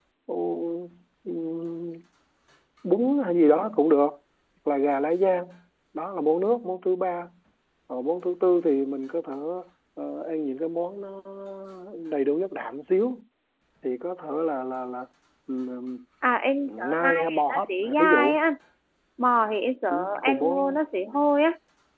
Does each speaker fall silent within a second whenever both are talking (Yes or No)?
No